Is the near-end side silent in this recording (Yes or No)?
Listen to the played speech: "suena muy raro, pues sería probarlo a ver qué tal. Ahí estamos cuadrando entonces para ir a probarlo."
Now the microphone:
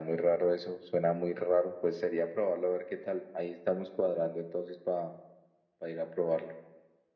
Yes